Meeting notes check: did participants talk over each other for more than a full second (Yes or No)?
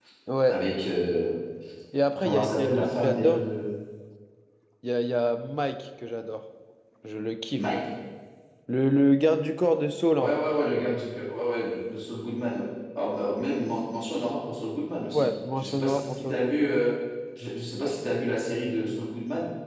Yes